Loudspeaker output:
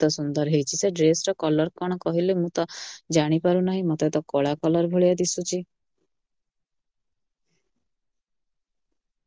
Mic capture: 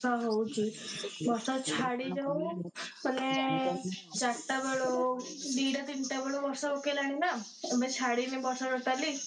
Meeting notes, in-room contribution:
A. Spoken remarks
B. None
A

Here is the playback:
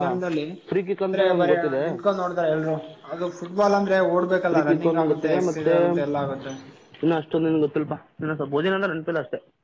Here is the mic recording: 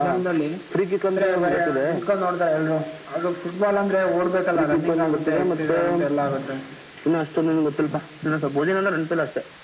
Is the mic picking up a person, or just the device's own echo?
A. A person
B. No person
B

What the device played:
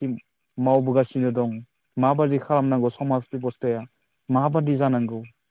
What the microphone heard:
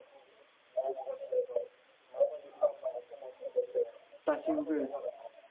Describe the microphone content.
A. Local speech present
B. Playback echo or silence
A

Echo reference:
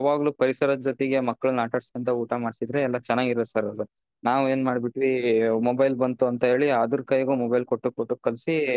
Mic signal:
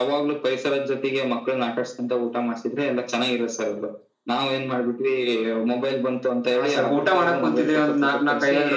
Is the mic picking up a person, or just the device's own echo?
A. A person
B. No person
A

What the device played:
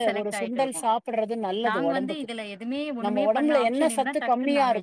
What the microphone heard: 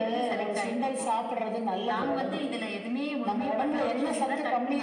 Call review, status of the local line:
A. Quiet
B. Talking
A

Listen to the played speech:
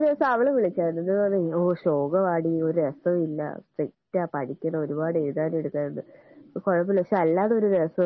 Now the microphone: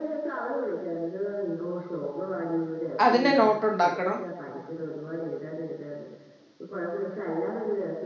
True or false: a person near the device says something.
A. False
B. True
B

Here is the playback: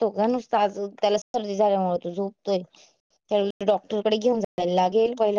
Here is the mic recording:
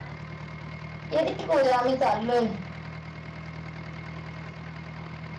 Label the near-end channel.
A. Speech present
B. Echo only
A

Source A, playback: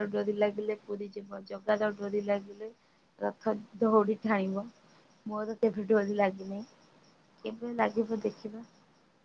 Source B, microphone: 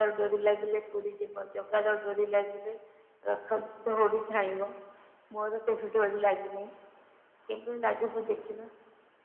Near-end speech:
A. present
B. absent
B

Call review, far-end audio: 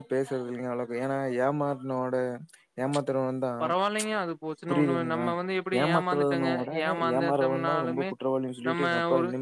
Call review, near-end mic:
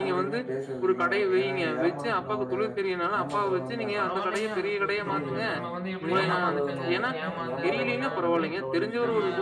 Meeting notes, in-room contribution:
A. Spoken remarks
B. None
A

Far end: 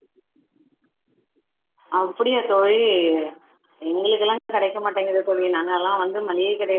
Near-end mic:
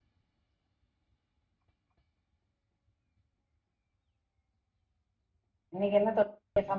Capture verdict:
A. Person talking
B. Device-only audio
A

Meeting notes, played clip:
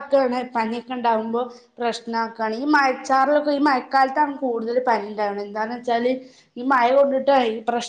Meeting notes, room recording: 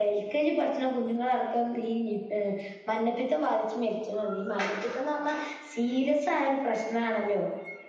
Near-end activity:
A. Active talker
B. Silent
A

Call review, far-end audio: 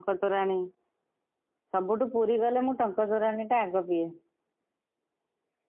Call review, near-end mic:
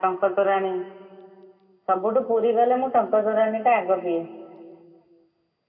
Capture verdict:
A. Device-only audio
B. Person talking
A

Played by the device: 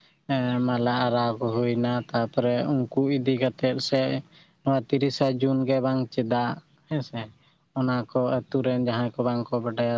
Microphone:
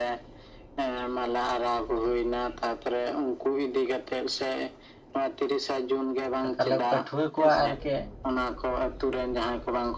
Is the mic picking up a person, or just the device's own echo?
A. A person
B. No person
A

